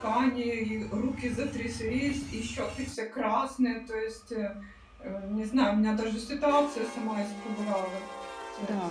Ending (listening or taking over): taking over